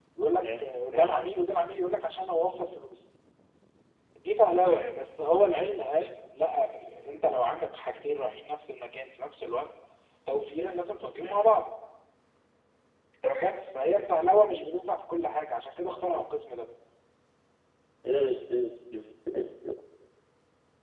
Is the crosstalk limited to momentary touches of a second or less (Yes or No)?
Yes